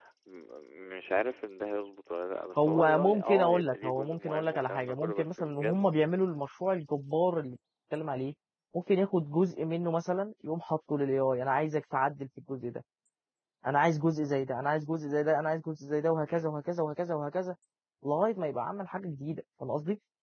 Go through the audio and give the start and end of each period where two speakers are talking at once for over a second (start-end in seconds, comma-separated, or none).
2.6-5.9